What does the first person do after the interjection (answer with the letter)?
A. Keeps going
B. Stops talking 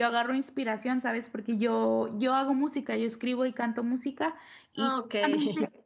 A